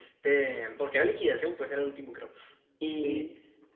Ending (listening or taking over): listening